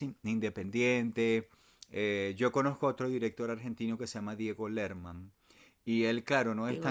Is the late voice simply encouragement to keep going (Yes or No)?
Yes